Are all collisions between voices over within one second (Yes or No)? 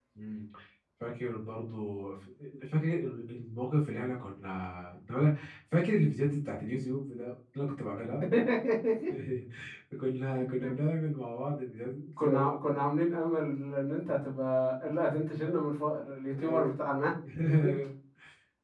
Yes